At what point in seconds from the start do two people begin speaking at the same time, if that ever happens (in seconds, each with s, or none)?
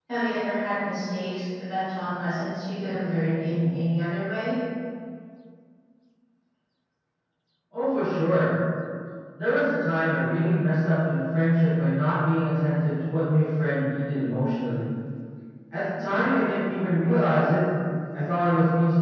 none